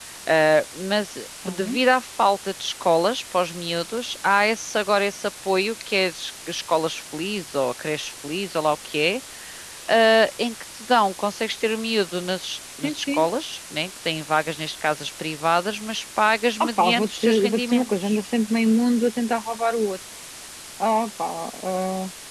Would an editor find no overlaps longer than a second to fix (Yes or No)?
No